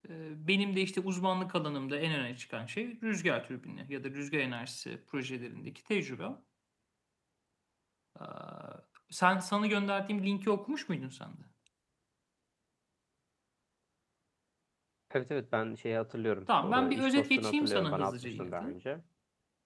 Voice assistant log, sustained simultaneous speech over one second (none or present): present